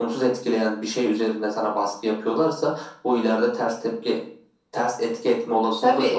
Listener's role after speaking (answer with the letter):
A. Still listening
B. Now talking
B